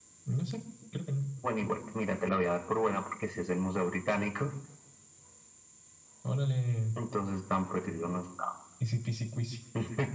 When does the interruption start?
none

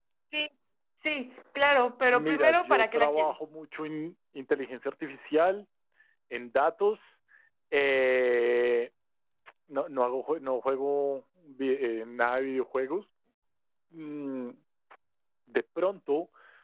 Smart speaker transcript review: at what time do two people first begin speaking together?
2.1 s

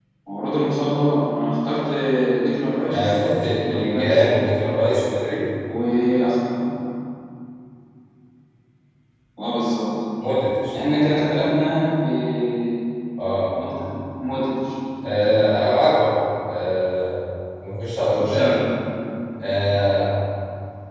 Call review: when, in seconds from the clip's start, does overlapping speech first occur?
2.9 s

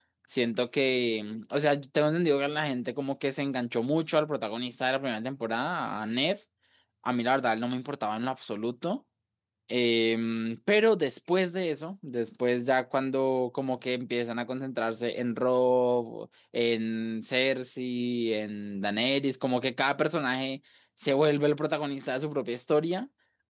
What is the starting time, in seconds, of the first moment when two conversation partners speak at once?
none

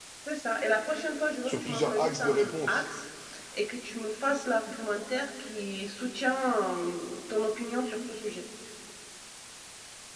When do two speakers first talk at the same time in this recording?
1.5 s

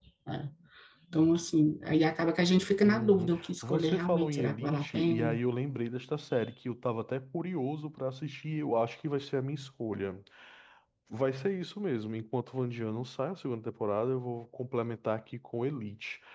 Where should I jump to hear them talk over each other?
2.8 s

